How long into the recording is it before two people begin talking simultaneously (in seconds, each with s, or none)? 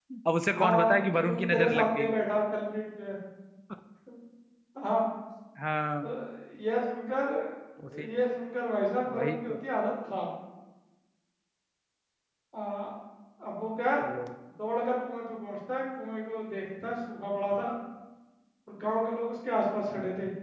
0.5 s